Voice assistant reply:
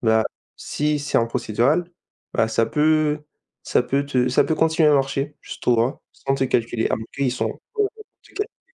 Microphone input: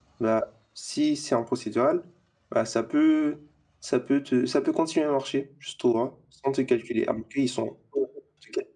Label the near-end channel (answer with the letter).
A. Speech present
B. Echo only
B